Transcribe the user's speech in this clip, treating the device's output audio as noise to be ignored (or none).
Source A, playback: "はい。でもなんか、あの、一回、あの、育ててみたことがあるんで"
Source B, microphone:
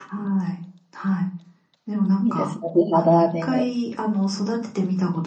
いいですね。美肌で。